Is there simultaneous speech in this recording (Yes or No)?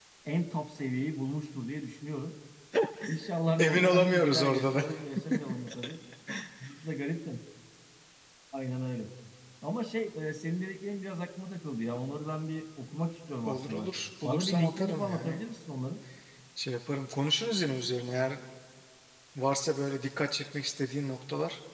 Yes